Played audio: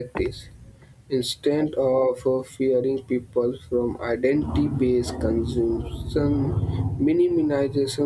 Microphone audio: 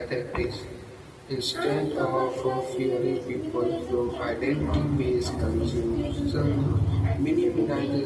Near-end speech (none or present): present